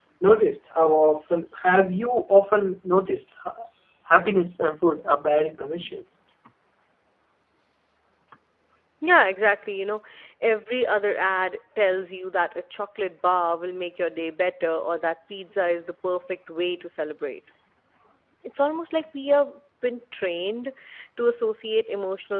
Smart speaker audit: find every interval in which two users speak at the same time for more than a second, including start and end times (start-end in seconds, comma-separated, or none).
none